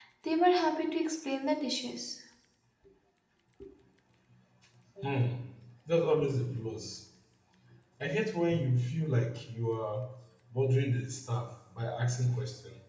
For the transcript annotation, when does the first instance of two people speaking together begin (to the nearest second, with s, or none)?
none